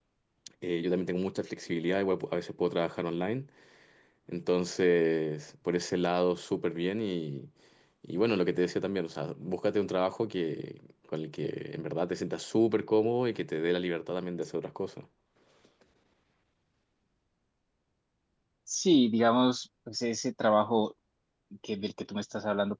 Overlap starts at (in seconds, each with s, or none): none